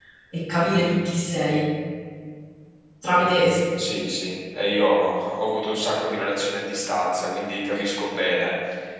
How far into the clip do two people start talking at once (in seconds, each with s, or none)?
none